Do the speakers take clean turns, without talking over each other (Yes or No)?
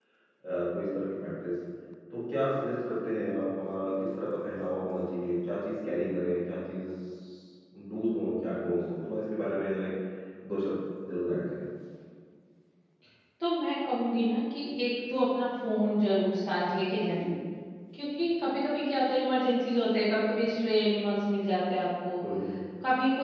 Yes